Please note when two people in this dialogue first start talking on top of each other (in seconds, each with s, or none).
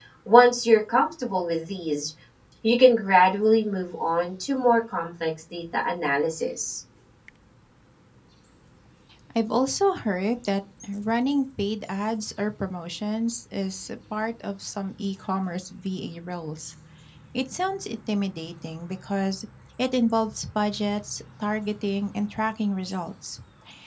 none